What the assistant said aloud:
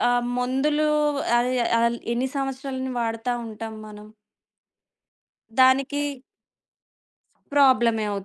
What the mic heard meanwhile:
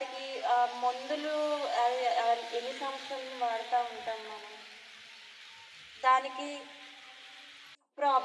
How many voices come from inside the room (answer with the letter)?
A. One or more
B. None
B